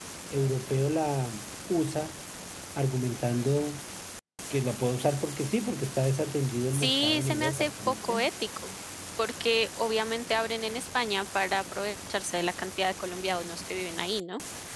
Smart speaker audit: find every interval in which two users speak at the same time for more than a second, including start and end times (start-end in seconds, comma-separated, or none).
6.7-8.2